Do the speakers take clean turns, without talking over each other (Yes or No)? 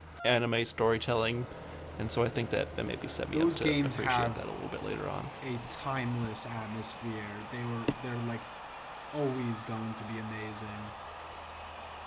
No